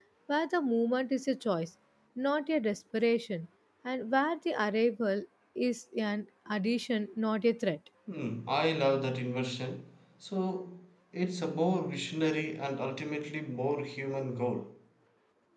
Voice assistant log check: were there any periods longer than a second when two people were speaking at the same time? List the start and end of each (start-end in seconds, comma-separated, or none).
none